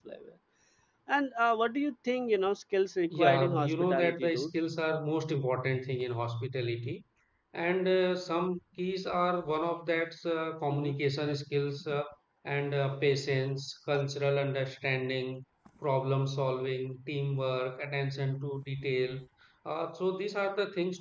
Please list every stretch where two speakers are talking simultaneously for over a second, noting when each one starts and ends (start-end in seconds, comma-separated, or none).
3.1-4.5